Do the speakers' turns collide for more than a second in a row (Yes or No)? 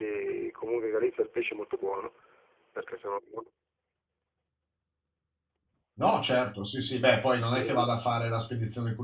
No